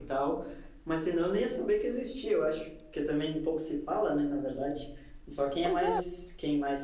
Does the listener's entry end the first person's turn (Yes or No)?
No